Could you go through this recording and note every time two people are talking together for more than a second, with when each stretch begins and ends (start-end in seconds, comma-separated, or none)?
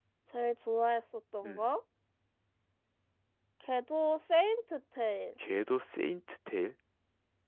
none